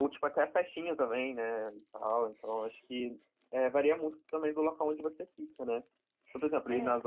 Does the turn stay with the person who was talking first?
Yes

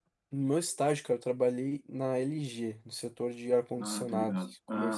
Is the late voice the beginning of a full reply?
Yes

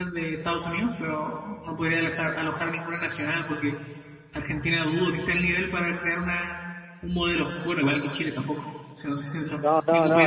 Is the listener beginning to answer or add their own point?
Yes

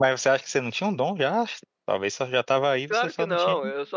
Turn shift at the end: Yes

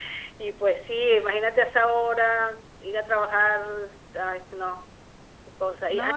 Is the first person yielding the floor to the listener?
No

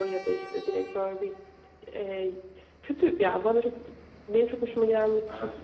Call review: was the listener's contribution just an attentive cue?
Yes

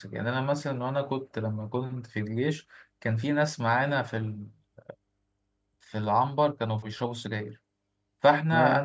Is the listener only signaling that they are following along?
Yes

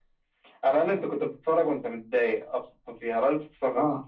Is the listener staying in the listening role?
Yes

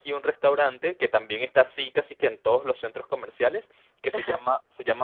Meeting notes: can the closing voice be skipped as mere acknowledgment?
Yes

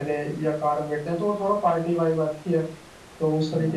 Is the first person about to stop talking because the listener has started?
Yes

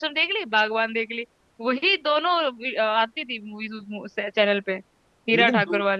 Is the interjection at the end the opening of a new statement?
Yes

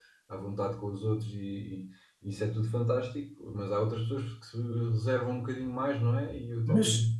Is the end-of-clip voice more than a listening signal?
Yes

